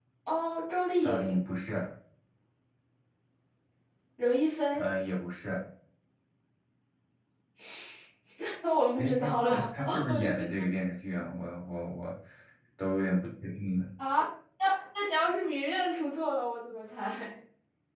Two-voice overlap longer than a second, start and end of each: 9.0-10.4

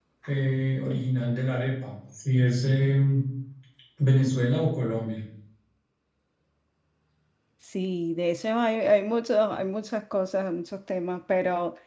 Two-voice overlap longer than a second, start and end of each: none

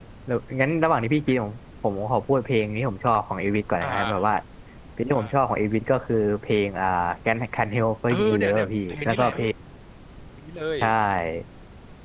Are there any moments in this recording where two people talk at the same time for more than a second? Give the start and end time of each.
8.1-9.3

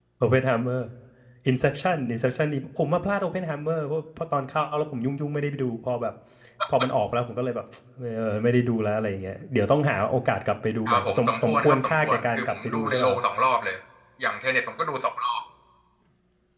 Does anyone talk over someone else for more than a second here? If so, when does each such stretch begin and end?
10.8-13.2

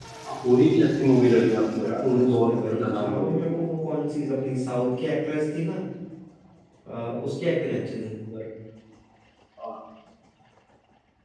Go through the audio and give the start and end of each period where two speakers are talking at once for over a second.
1.8-3.5

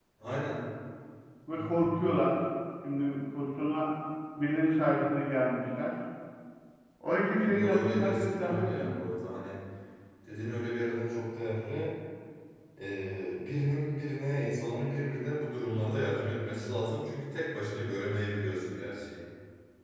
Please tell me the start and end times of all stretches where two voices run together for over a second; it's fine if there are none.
7.4-9.0

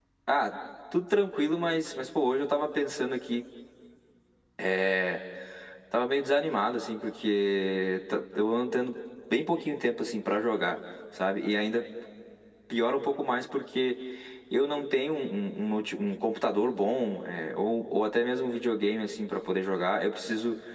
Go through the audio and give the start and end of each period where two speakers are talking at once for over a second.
none

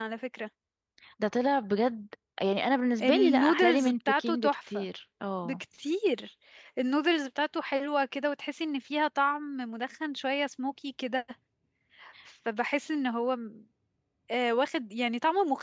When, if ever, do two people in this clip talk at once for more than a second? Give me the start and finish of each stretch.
3.0-4.9

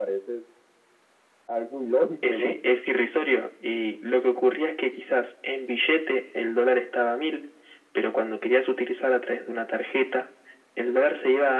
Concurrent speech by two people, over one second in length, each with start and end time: none

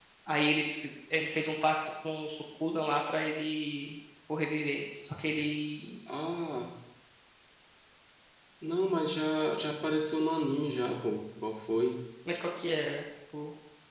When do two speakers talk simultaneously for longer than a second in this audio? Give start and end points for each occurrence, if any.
none

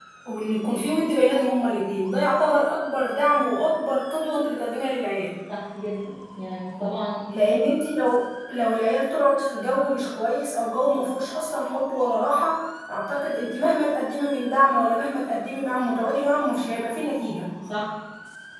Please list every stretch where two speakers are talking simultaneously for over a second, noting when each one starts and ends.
none

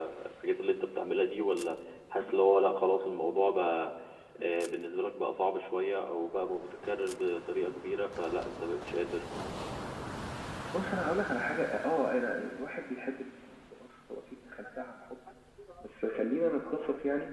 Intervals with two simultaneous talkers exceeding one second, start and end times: none

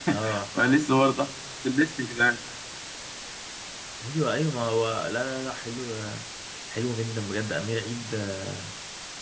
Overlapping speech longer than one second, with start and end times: none

